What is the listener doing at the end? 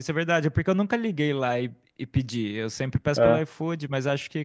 listening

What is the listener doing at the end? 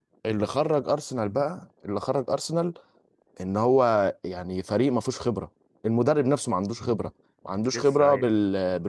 listening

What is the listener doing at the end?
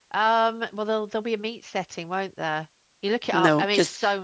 listening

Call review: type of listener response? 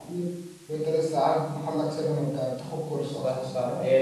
taking over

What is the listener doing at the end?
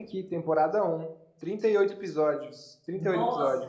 taking over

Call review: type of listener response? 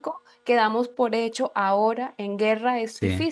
taking over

